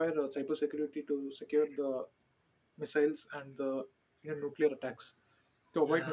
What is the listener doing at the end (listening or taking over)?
listening